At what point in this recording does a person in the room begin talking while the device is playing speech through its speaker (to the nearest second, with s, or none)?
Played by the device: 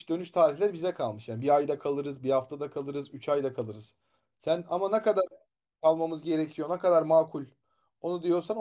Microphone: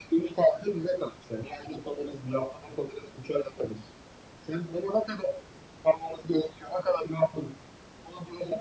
none